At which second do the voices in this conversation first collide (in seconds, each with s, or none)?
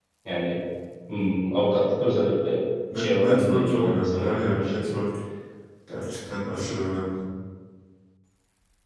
2.9 s